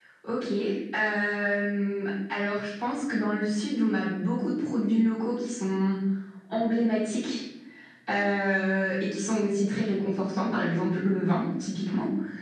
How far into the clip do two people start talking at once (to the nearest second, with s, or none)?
none